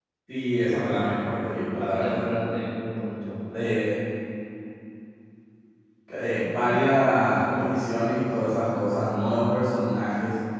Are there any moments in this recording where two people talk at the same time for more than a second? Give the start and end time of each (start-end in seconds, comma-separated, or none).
none